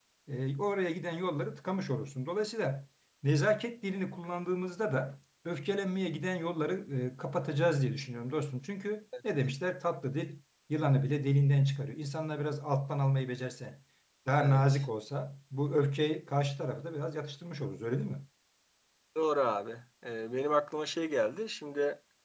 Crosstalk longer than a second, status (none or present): none